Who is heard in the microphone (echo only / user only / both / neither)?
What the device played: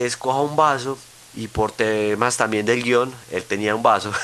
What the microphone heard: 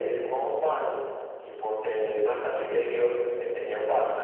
echo only